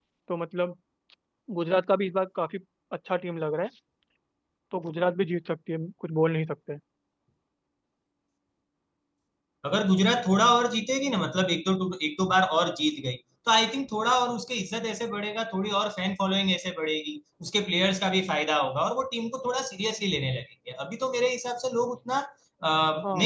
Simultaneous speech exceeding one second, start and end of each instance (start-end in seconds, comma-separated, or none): none